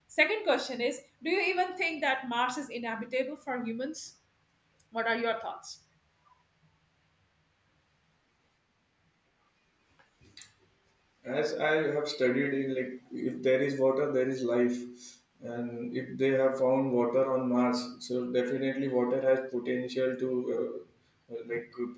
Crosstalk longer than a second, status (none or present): none